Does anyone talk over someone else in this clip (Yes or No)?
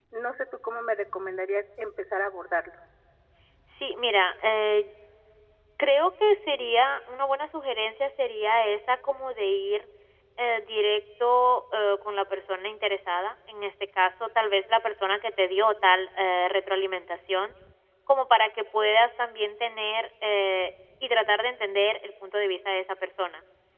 No